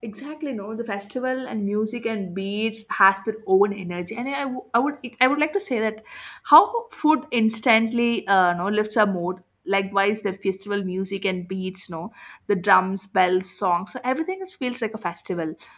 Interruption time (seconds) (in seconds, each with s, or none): none